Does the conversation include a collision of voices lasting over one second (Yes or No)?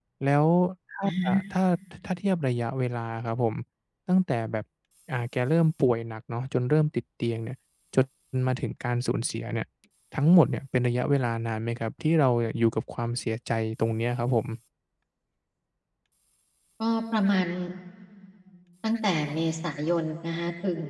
No